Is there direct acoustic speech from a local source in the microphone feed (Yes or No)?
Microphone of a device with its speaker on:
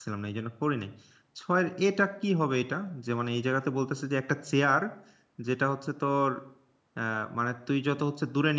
Yes